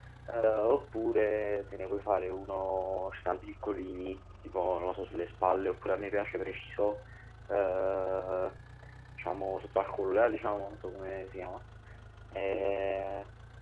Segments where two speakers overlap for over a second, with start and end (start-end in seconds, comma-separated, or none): none